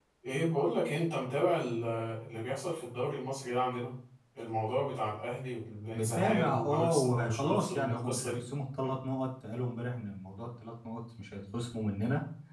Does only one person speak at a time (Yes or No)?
No